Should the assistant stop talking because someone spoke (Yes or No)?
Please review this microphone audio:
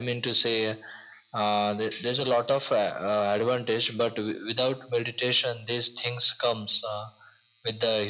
No